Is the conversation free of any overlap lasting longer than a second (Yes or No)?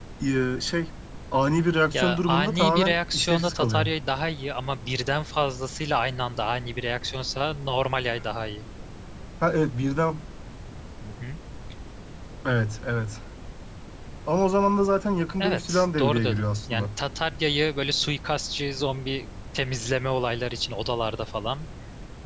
No